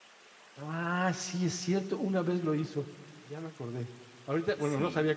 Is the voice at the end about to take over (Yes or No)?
No